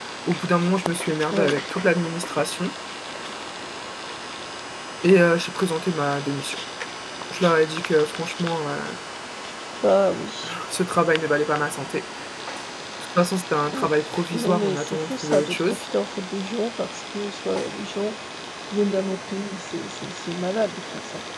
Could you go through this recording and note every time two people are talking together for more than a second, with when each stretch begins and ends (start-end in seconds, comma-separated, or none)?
14.3-15.8